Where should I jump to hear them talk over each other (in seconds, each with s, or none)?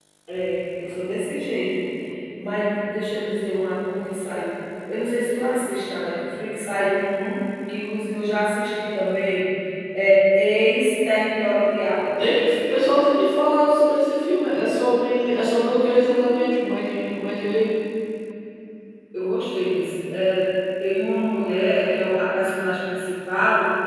none